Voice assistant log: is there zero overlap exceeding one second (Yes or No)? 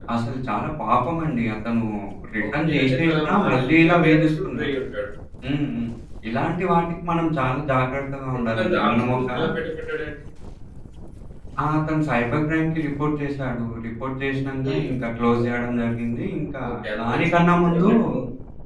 No